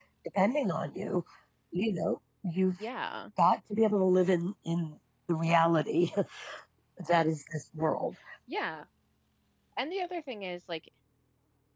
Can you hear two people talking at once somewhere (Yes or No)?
No